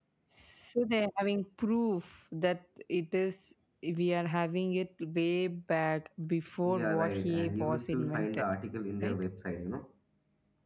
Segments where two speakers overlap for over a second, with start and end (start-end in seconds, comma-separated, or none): 6.6-8.4